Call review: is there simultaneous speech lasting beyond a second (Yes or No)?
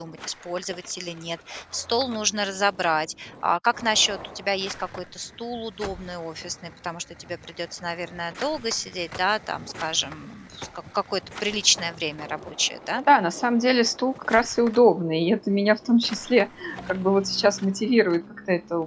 No